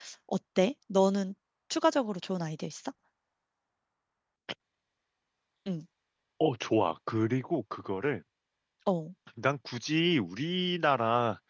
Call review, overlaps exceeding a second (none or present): none